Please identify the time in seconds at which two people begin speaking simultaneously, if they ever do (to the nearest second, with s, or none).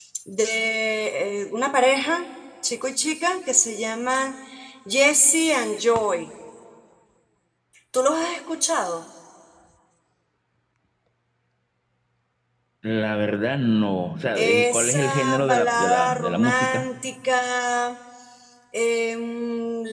14 s